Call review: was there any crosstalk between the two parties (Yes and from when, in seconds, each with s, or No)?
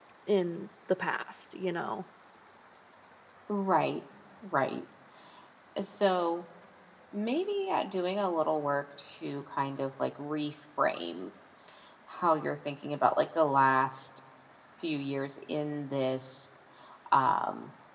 No